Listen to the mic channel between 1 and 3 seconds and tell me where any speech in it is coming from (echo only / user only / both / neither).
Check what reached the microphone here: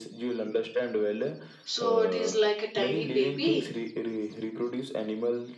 both